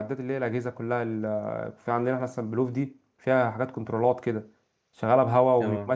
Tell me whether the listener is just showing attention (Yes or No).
Yes